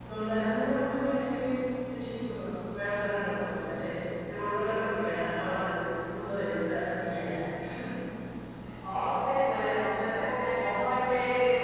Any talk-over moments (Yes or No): No